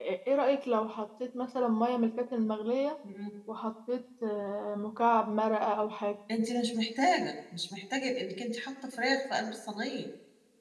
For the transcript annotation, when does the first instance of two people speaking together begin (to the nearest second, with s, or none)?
none